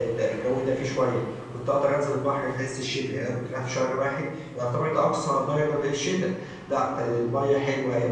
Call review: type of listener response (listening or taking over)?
listening